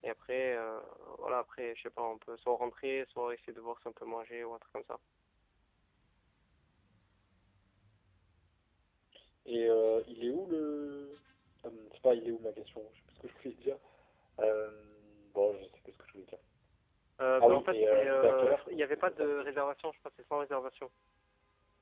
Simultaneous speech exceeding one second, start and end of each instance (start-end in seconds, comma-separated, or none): 17.4-19.5